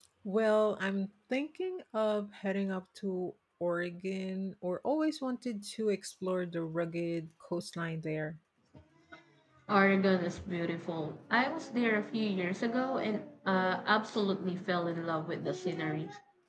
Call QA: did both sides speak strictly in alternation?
Yes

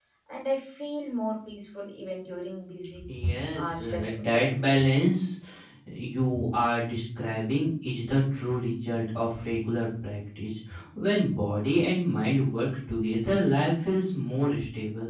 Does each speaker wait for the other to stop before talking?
No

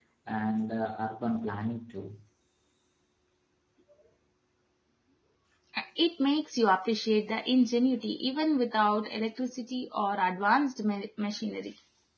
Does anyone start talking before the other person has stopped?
No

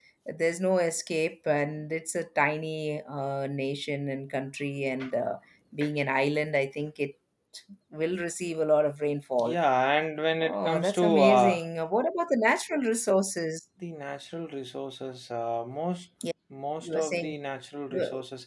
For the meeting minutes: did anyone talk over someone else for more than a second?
Yes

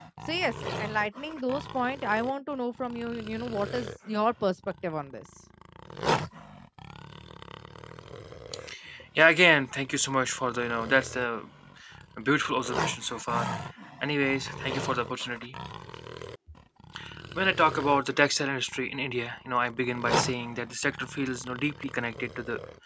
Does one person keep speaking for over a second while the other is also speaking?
No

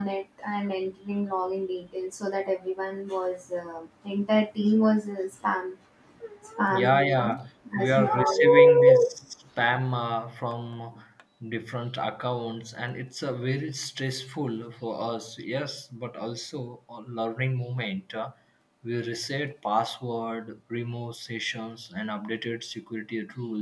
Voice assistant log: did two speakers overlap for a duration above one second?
Yes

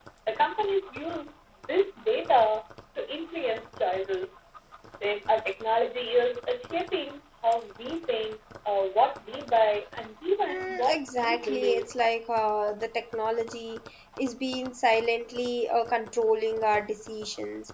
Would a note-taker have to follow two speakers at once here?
Yes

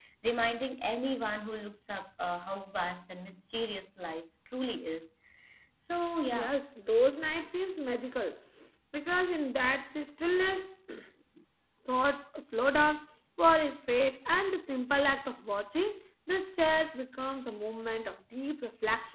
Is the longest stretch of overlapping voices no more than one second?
Yes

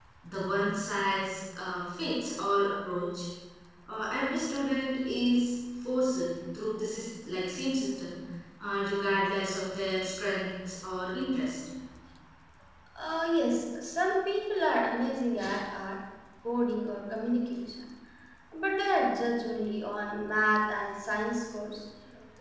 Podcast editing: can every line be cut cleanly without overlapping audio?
Yes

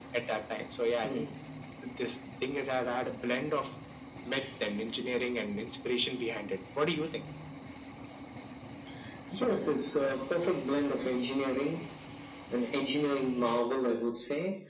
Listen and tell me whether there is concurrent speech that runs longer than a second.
No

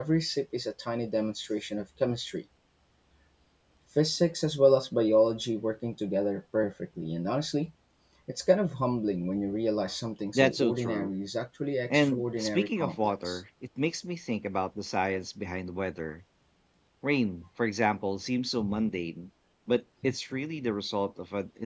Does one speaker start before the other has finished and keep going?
Yes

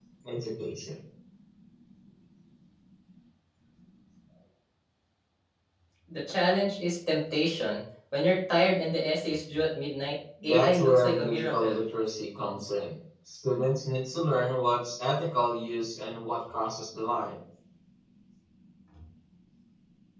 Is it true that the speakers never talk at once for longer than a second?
No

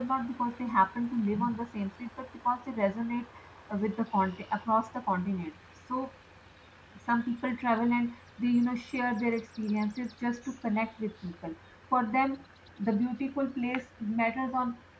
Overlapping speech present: No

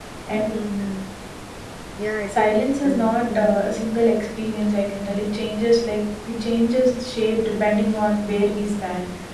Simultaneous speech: Yes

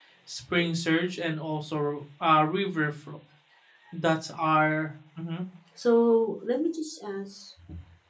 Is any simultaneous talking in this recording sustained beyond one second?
No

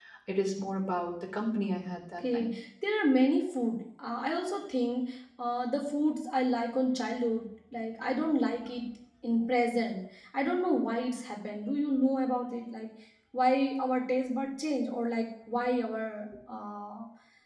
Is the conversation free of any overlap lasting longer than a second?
Yes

